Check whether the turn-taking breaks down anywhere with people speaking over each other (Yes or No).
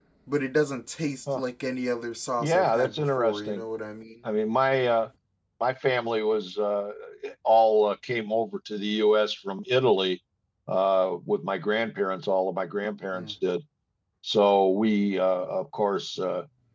Yes